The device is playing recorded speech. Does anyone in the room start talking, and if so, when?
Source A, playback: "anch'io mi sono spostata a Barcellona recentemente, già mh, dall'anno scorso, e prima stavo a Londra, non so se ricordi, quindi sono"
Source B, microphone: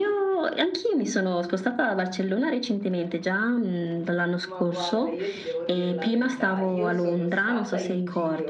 4 s

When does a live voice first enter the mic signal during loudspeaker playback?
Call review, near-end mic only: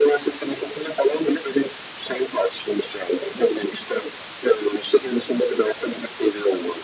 none

